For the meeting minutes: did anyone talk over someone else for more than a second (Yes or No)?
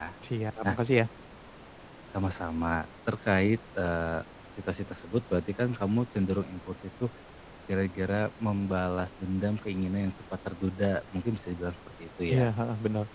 No